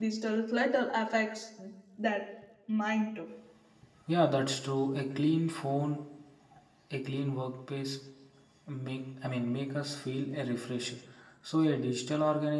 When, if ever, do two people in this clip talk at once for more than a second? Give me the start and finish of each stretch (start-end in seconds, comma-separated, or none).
none